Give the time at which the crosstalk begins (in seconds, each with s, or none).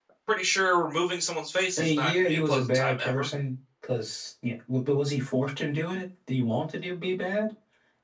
1.8 s